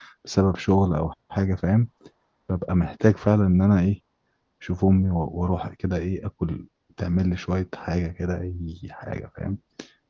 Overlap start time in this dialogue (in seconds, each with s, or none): none